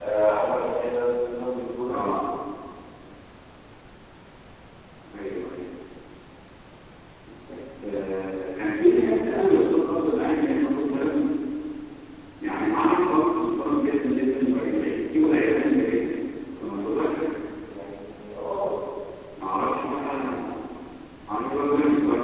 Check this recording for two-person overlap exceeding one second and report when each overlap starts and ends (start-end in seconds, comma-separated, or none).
none